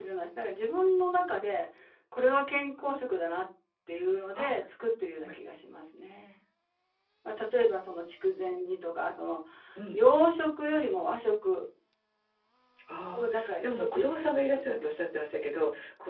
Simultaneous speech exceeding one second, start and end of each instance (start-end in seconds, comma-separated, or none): 13.1-14.9